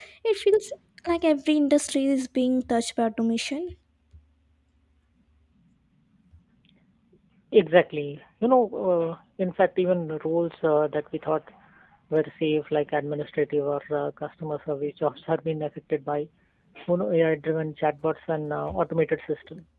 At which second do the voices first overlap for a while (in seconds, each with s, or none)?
none